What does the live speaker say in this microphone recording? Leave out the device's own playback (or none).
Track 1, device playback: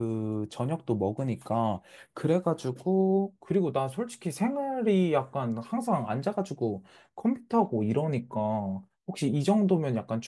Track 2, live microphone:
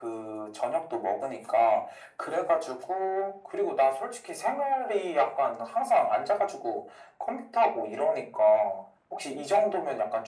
none